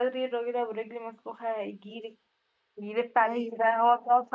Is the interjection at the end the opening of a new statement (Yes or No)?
No